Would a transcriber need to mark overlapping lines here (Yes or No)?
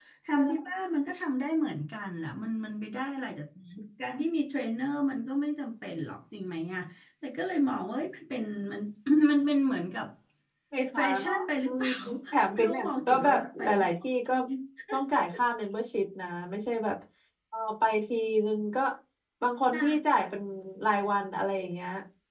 Yes